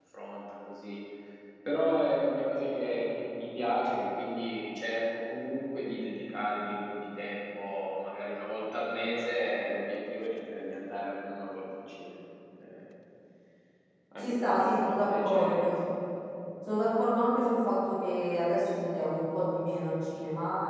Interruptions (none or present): present